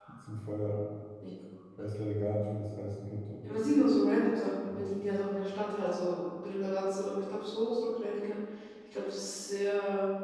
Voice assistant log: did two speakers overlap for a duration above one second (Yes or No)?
No